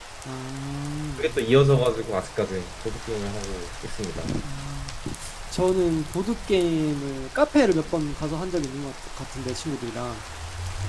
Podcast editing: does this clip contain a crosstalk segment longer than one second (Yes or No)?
No